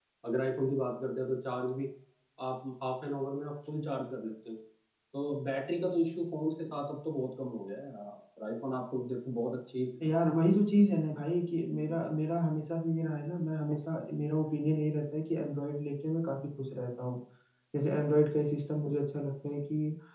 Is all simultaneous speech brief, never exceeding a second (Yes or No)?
Yes